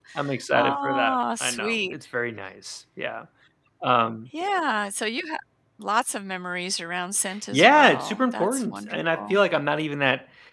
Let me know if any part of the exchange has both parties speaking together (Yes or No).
Yes